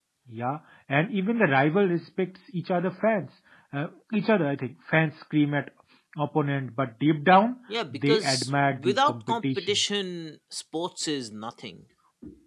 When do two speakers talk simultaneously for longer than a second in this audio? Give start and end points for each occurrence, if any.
7.9-9.8

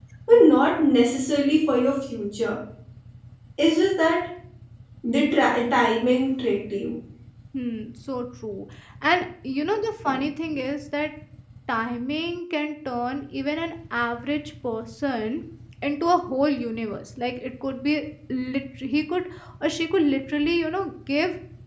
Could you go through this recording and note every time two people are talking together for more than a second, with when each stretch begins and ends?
none

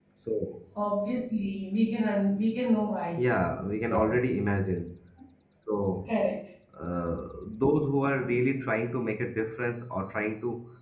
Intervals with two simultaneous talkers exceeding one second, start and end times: none

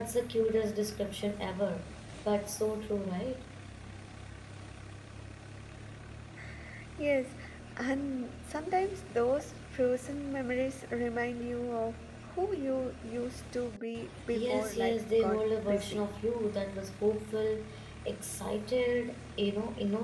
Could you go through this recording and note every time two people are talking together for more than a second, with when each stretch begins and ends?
14.3-16.0

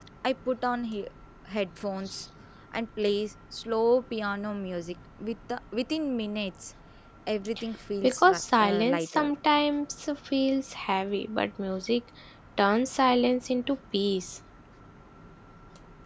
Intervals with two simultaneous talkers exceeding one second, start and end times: 8.0-9.3

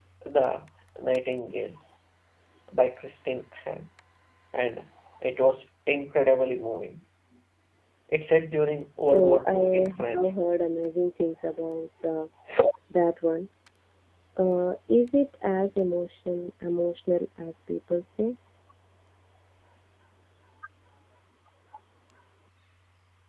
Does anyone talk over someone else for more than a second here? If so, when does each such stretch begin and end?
9.1-10.3

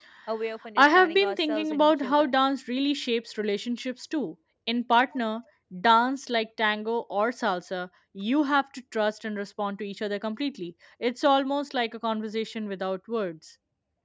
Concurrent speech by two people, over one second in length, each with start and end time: 0.8-2.3

